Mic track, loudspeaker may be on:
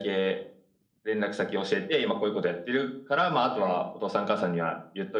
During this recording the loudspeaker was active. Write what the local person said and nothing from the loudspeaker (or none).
はい。